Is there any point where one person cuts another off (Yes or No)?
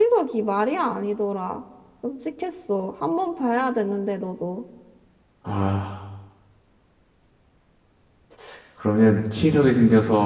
No